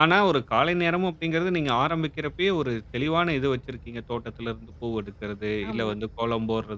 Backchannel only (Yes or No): Yes